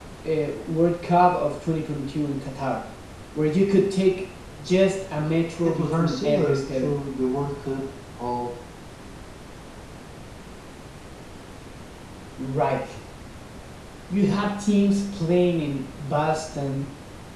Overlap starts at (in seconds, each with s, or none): 5.6 s